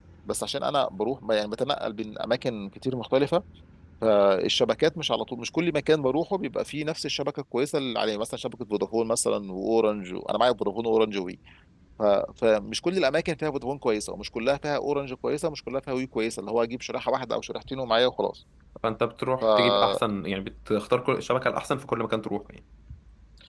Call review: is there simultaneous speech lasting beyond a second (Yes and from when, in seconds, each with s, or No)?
No